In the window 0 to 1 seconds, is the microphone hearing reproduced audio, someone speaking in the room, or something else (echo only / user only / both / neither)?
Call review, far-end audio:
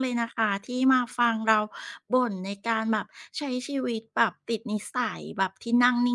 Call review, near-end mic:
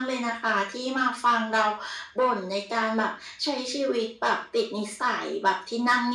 echo only